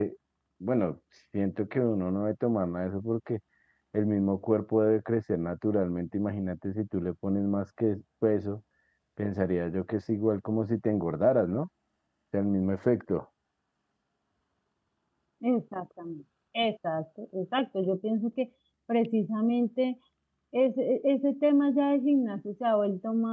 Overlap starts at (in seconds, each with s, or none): none